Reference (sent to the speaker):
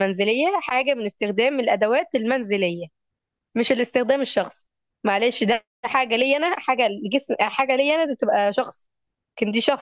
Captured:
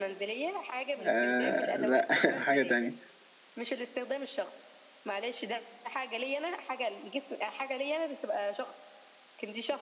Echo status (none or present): present